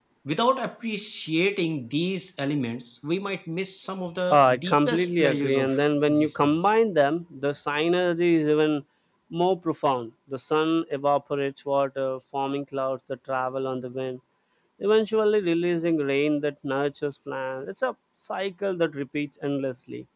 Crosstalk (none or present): present